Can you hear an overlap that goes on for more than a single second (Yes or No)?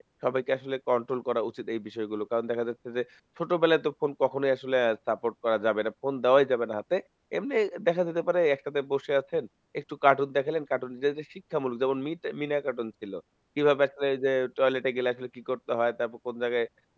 No